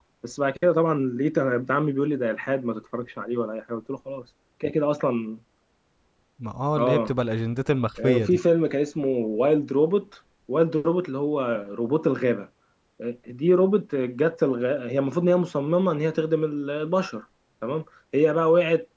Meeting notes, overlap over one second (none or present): none